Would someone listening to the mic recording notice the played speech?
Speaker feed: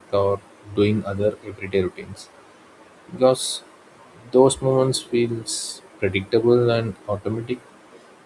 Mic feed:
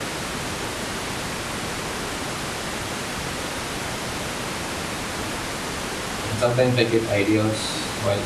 No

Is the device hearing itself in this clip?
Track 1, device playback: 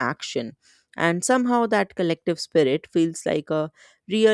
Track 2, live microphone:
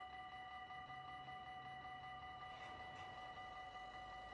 No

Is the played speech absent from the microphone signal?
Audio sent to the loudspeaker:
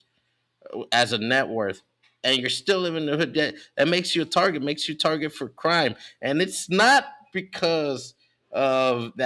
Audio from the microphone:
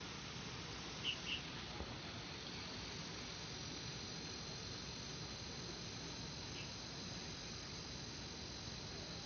Yes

